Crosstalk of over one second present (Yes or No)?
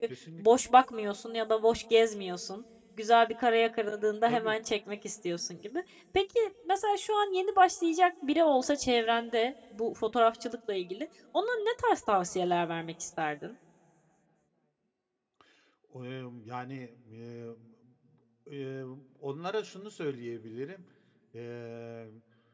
No